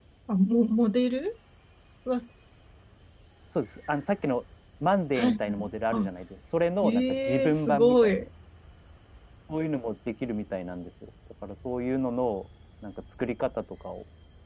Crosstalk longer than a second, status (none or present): present